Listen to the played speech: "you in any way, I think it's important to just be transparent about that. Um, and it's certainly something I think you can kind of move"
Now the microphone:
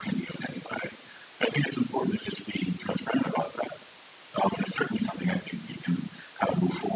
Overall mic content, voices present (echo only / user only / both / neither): echo only